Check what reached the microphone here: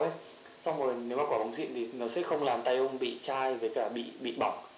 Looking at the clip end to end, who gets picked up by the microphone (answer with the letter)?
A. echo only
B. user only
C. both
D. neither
A